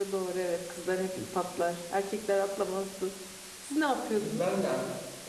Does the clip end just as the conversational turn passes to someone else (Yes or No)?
Yes